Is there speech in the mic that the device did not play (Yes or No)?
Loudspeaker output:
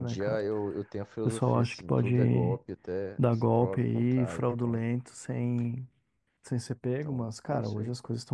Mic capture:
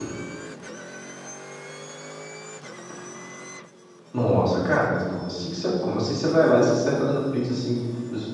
Yes